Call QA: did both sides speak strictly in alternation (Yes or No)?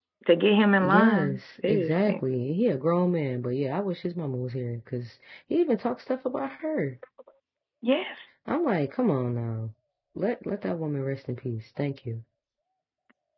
No